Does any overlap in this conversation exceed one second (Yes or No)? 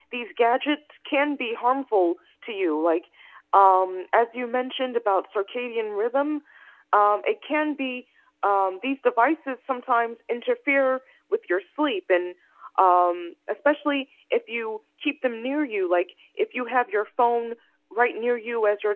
No